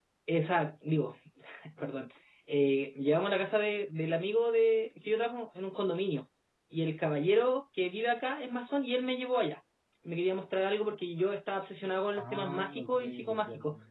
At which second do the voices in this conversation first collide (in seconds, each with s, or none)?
12.1 s